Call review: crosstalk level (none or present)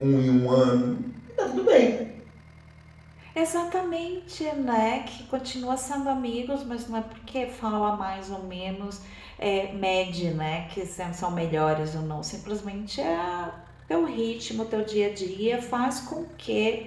none